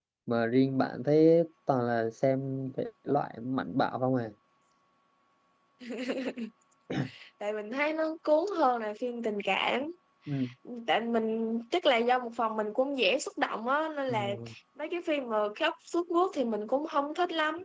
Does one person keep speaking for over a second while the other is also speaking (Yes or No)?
No